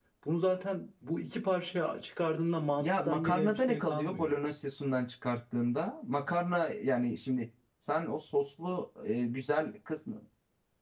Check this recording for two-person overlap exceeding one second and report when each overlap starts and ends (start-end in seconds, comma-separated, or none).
2.8-4.4